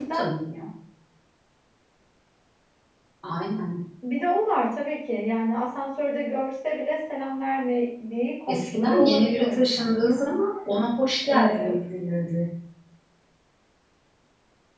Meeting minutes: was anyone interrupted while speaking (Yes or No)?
Yes